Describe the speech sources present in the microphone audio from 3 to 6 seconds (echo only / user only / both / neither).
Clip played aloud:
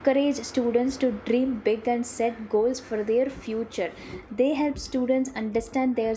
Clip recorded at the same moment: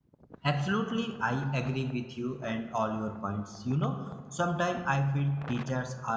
user only